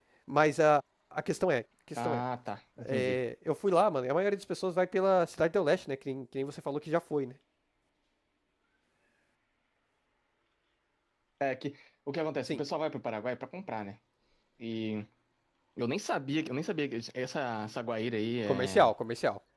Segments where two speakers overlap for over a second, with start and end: none

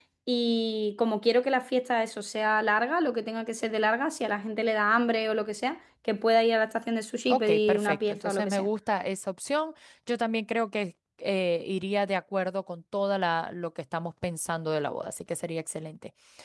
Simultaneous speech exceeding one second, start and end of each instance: 7.3-8.7

